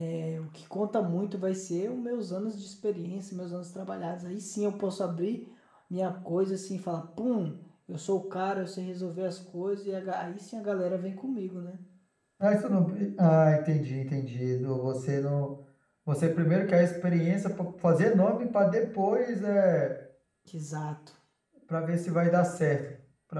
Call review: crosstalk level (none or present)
none